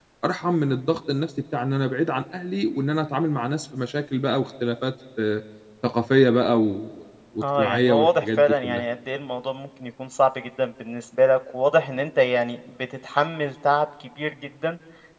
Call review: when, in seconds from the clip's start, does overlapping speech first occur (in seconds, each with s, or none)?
7.4 s